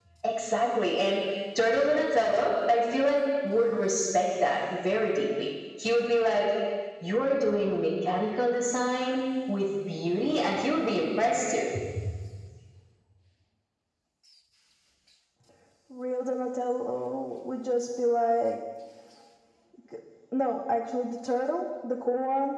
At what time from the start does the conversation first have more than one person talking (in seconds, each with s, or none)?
none